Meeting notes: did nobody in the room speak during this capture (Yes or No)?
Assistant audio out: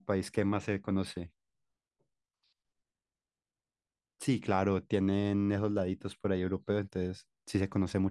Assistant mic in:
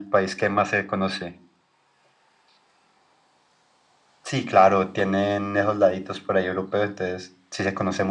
Yes